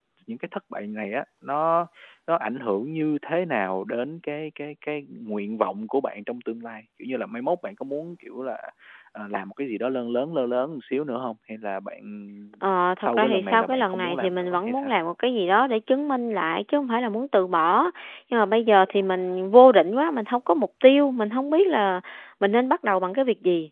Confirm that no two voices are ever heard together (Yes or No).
No